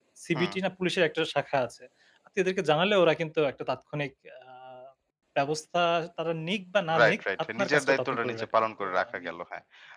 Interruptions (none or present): present